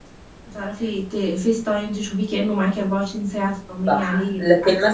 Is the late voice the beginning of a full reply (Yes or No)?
Yes